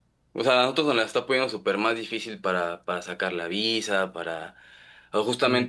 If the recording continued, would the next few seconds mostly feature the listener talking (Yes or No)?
No